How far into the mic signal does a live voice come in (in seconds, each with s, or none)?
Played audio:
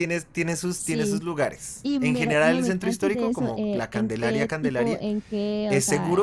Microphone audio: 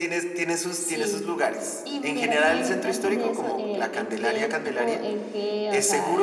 2.5 s